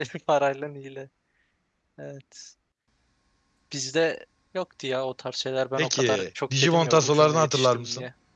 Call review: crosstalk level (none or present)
present